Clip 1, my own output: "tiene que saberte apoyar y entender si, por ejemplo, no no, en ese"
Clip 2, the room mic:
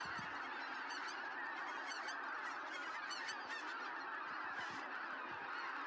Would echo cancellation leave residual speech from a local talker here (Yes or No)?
No